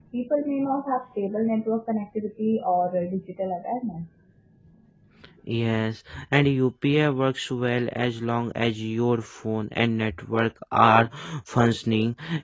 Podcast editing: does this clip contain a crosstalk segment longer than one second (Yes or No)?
No